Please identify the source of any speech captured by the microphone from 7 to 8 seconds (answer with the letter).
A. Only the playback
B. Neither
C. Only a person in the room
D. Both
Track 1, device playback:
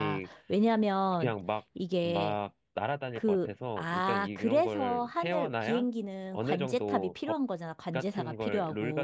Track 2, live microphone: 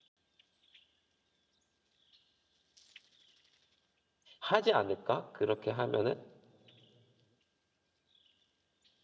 B